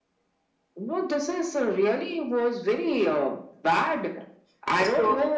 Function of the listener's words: listening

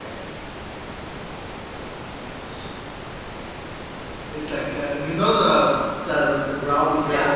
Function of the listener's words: listening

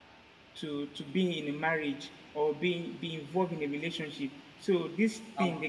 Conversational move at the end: taking over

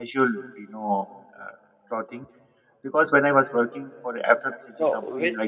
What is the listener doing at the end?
taking over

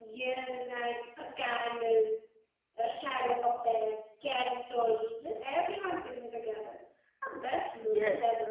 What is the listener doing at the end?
taking over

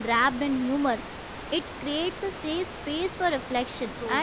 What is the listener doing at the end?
listening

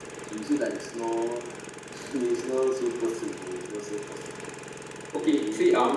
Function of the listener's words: taking over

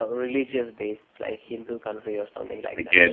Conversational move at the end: listening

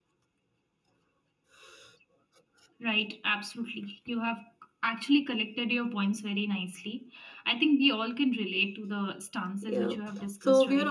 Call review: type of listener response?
taking over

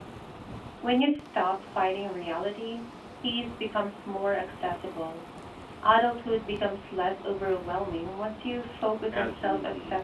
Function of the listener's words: taking over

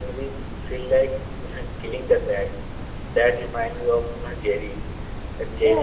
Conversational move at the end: taking over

